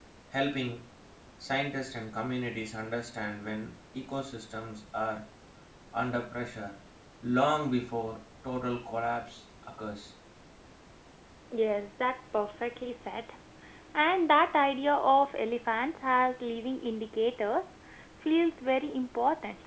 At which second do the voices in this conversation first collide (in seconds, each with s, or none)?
none